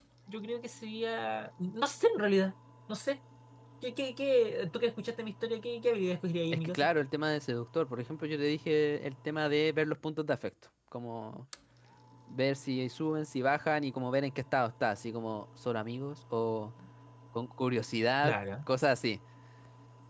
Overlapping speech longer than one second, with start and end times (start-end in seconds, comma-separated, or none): none